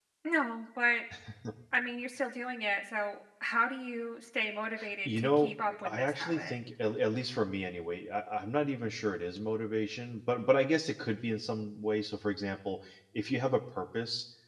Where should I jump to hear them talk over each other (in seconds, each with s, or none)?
5.0 s